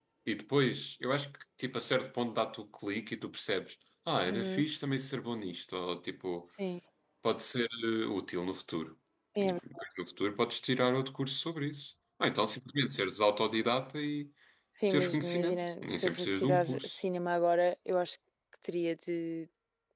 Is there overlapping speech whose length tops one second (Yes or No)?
Yes